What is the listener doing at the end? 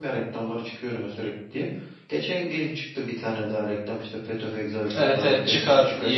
taking over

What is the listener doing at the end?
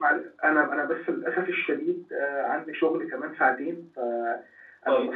listening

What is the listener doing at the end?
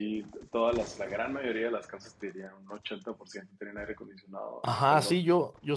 taking over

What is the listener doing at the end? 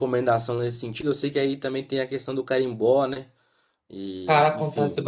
taking over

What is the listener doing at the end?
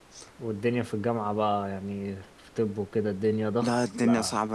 taking over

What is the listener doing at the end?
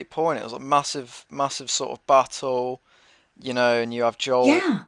listening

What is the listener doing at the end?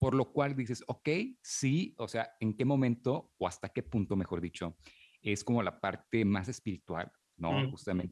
listening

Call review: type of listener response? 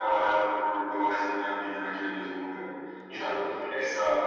listening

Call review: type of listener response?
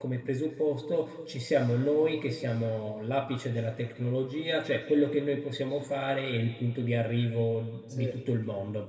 listening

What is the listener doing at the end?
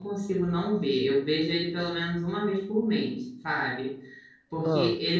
listening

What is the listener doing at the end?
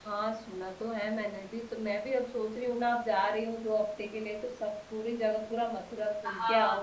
taking over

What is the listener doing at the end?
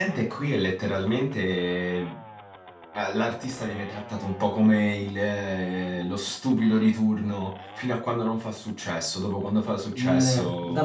taking over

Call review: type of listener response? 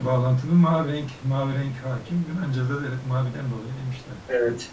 taking over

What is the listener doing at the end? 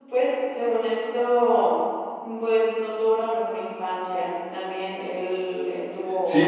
taking over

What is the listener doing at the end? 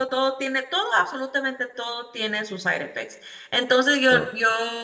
listening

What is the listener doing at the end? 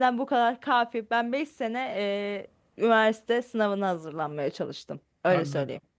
taking over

